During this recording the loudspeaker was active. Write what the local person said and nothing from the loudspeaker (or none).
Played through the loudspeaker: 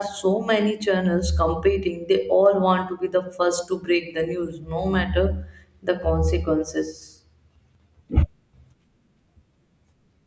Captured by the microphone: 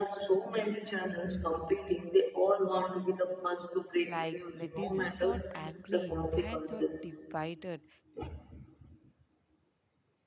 Like netizens are angry, fans are divided,